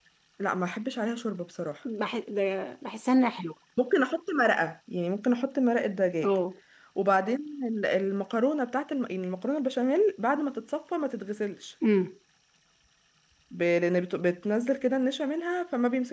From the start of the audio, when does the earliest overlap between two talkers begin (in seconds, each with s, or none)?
none